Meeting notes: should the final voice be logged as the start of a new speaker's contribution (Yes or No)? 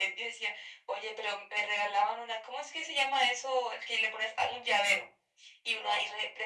No